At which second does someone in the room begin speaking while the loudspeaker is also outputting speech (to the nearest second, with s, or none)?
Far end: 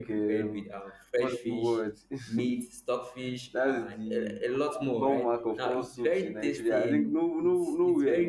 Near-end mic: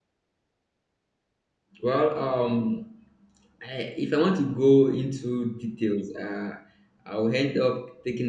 2 s